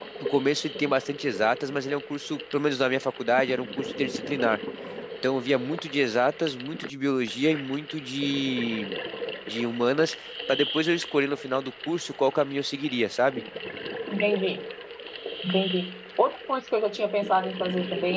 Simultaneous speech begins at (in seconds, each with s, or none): none